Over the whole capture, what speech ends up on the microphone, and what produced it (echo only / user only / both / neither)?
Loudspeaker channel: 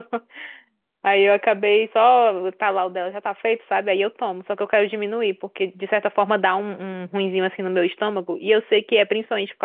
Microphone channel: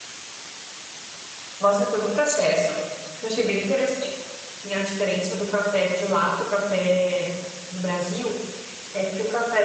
user only